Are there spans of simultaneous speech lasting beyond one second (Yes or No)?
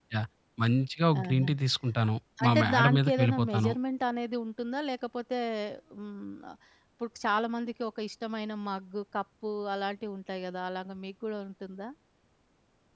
Yes